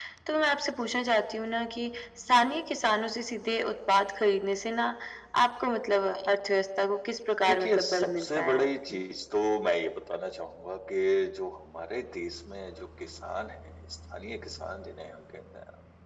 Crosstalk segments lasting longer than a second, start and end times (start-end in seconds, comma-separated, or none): 7.5-9.0